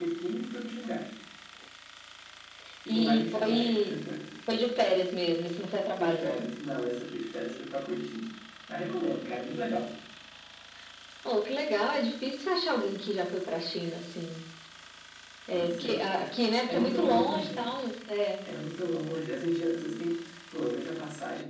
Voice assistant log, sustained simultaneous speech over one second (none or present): present